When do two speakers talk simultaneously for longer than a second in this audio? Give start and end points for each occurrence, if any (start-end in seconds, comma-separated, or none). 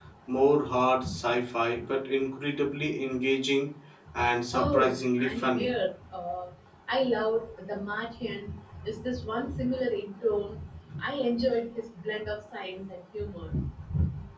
4.5-5.7